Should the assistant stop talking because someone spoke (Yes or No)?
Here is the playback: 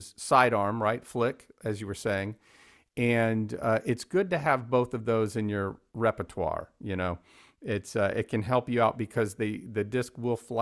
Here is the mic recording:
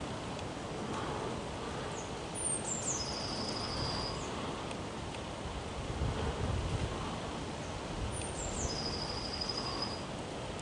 No